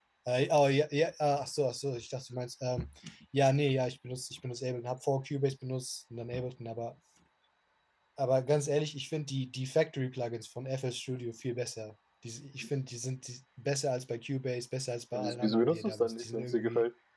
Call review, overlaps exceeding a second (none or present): present